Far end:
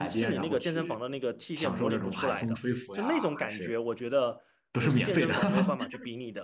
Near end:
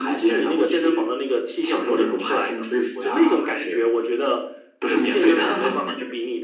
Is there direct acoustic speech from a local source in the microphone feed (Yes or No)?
No